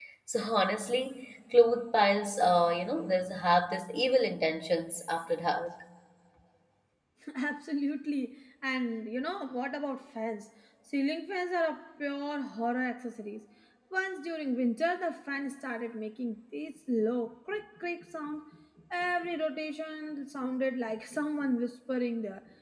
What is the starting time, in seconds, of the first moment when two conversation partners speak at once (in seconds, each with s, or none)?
none